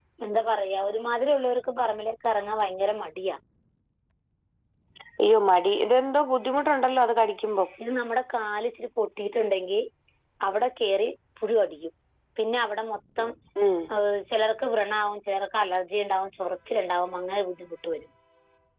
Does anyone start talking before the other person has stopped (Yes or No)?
No